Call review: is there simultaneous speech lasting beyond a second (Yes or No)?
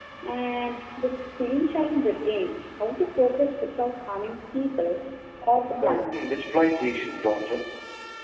No